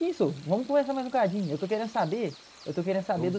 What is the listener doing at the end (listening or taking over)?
listening